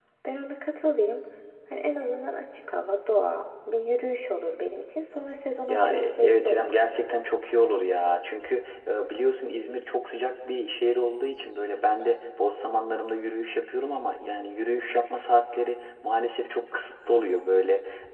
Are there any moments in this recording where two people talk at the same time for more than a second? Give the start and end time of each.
5.7-7.1

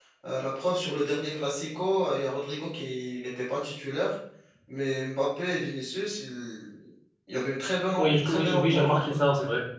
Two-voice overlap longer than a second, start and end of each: 8.0-9.2

